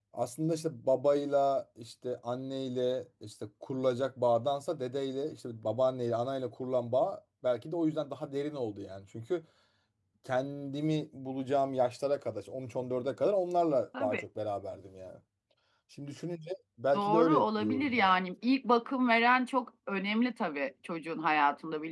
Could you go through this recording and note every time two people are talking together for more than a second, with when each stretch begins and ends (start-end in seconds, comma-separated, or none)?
16.9-18.2